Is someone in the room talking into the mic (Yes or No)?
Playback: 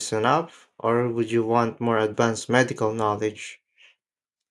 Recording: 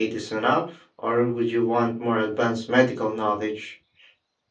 No